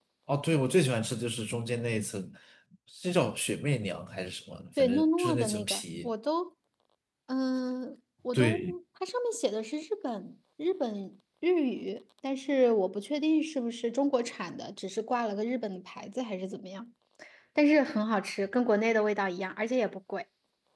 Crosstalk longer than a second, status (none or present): present